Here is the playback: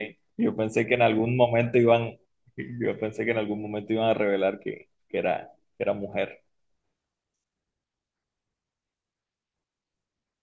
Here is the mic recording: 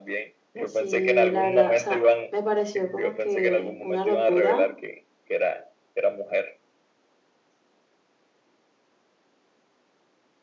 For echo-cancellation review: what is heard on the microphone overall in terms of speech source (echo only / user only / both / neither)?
both